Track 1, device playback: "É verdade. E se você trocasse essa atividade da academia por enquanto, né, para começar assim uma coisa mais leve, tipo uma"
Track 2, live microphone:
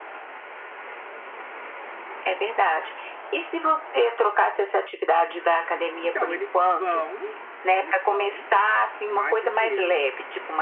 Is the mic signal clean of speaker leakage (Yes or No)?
No